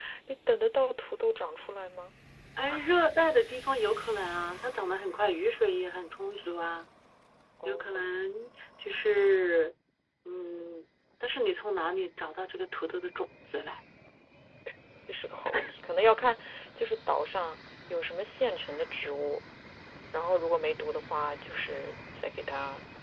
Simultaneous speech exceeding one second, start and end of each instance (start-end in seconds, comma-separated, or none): none